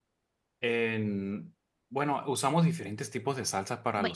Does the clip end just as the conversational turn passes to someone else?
No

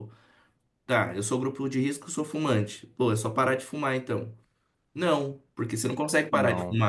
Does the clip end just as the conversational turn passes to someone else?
No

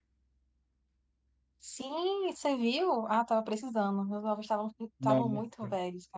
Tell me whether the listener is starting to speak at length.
No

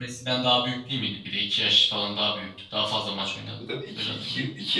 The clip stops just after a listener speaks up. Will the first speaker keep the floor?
No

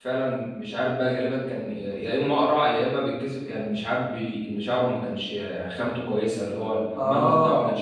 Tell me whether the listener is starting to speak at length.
No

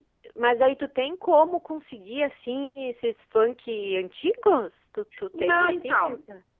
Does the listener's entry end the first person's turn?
Yes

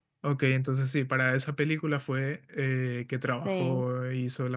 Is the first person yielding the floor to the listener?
No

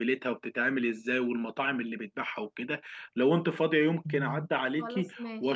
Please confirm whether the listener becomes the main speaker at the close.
No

